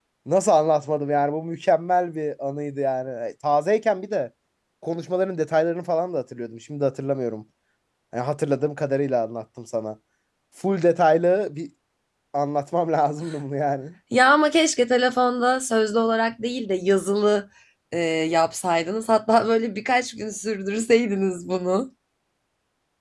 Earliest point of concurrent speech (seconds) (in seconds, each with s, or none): none